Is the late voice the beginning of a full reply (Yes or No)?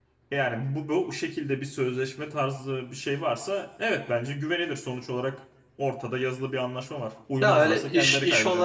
Yes